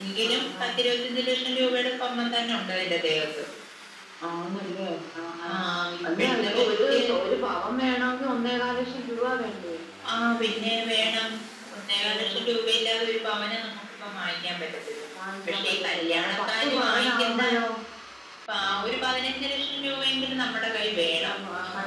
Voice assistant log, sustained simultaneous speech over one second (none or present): present